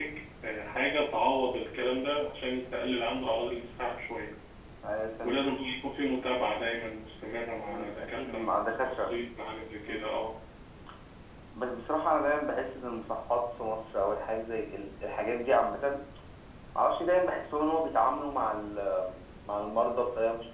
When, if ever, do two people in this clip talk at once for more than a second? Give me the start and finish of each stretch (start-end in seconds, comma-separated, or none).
7.7-9.1